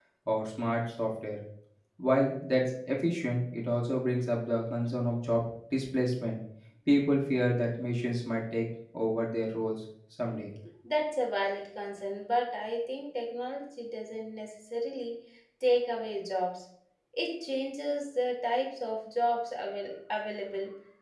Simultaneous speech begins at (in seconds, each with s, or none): none